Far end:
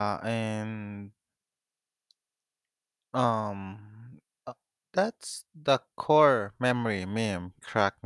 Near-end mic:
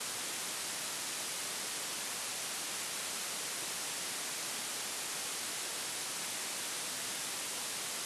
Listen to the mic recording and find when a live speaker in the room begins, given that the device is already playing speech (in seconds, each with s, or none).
none